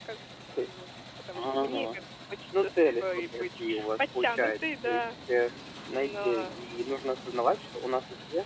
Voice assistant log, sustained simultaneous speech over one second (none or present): present